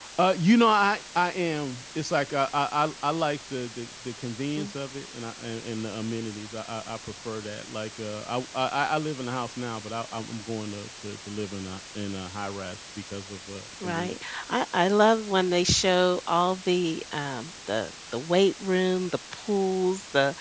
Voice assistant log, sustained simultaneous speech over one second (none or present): none